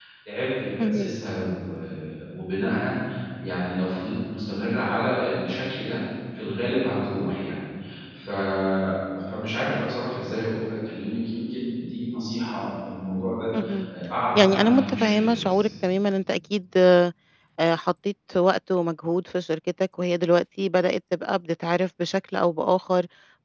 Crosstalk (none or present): present